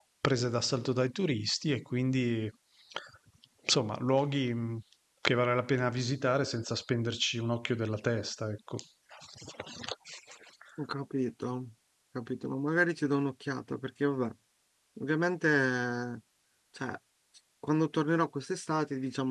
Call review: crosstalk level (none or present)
none